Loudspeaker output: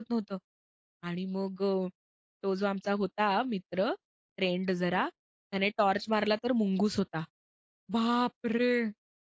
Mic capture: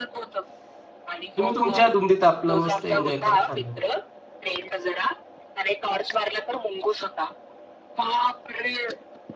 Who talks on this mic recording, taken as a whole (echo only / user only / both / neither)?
both